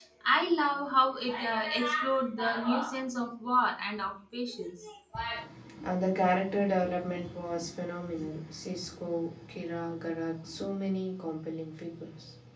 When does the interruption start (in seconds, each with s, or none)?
none